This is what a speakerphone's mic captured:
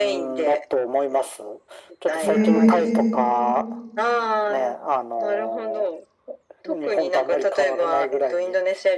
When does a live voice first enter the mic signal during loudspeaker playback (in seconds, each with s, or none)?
2.2 s